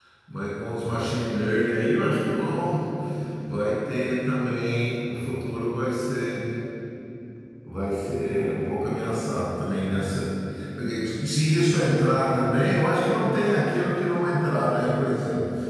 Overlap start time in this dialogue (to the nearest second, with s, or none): none